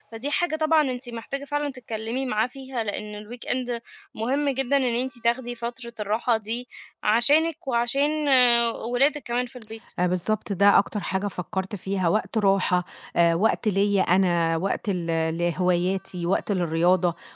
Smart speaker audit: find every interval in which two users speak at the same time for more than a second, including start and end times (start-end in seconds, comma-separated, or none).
none